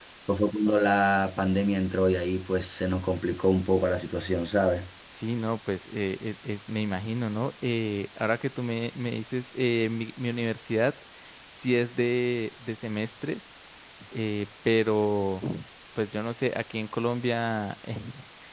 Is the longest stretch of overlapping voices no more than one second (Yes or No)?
Yes